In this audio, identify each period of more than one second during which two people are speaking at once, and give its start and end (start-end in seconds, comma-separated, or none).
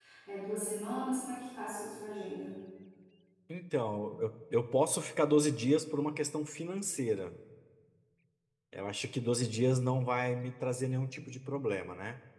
none